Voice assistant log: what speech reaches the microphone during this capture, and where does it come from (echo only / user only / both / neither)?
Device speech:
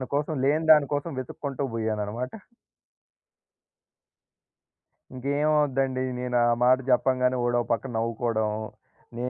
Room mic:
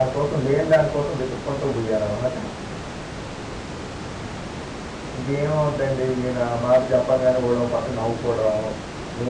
echo only